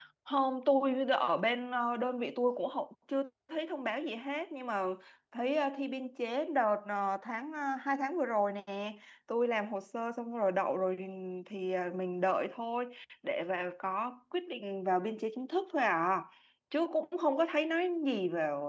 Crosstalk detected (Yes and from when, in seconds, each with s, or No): No